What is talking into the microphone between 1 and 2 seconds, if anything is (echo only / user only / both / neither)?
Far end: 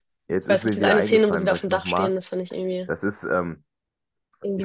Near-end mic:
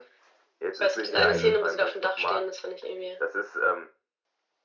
both